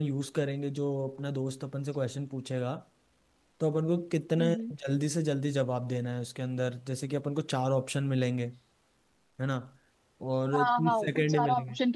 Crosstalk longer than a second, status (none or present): present